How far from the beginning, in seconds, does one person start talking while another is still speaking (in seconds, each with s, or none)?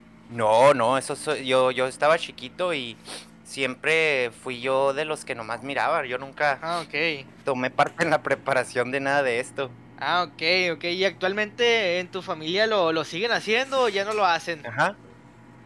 none